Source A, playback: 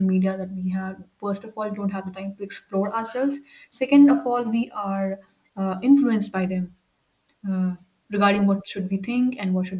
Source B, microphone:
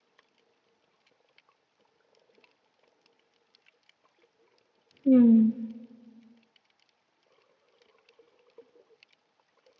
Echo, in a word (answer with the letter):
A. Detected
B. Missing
B